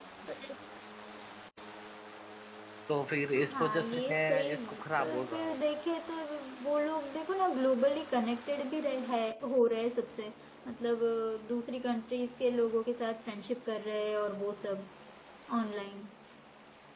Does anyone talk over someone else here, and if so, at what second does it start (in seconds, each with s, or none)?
3.5 s